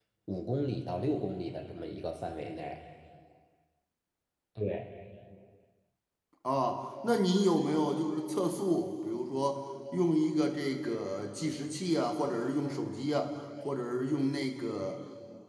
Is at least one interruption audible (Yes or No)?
No